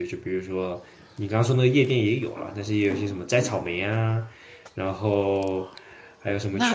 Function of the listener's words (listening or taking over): taking over